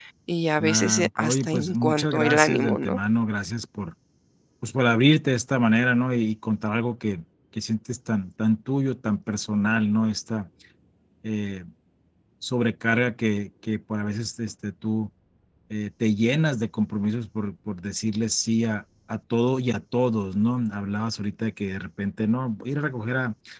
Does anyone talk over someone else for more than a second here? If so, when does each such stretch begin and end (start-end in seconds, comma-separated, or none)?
0.6-3.0